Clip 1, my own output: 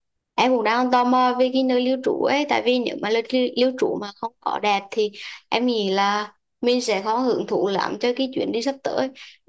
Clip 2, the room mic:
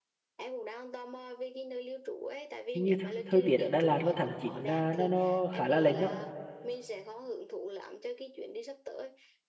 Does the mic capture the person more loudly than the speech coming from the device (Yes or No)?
Yes